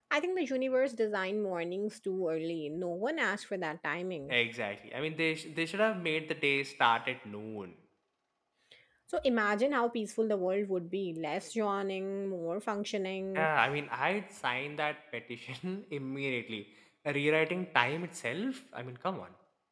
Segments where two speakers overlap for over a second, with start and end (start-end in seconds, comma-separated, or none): none